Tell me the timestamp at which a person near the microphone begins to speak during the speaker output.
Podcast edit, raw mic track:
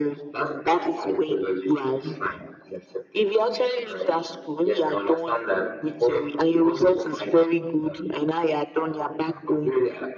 none

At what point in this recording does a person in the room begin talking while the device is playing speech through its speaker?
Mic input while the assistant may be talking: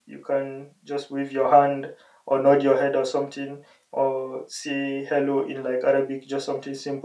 none

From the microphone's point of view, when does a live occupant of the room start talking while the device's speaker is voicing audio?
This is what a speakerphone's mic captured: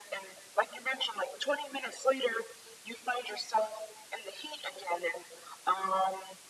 none

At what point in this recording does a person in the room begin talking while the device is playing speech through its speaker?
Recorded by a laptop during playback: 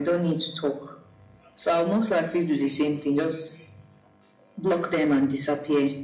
none

